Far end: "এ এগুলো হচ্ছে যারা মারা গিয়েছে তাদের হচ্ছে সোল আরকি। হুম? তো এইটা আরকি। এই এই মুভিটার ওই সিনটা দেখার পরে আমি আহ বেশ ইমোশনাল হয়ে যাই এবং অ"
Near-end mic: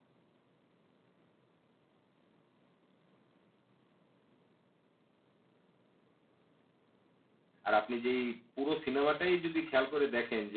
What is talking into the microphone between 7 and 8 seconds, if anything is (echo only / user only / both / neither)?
user only